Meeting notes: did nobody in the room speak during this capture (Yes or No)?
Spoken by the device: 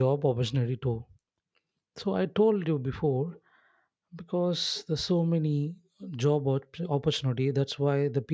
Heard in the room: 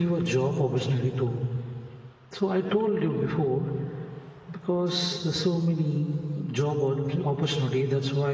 Yes